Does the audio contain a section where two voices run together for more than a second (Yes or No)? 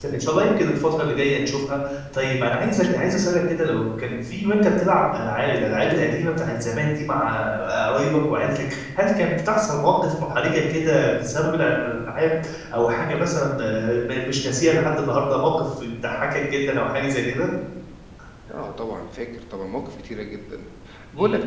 No